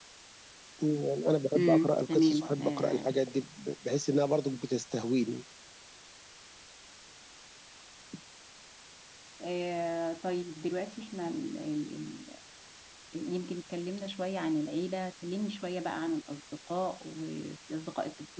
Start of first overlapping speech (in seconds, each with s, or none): 1.6 s